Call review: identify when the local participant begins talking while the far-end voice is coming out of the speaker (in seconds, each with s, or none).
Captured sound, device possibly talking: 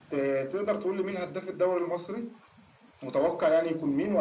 none